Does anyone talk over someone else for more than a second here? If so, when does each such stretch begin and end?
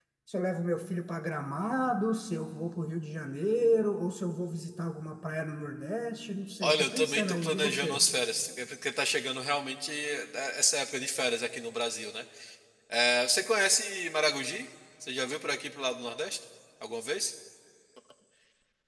6.6-8.0

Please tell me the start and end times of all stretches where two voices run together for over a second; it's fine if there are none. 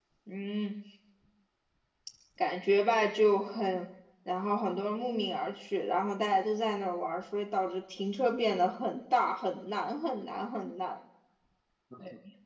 none

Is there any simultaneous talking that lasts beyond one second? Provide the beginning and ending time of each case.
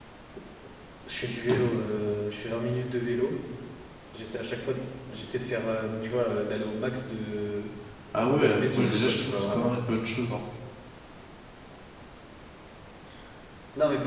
8.3-9.7

